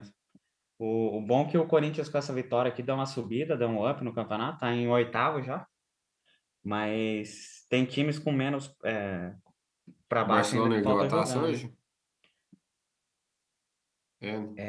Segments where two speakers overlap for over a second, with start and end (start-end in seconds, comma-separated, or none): 10.2-11.6